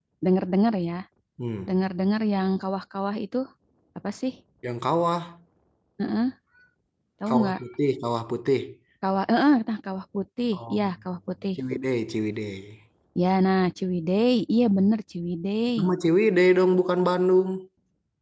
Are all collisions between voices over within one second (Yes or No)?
Yes